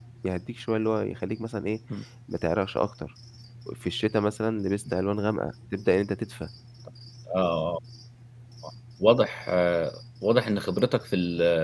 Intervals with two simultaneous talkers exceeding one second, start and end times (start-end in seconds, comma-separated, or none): none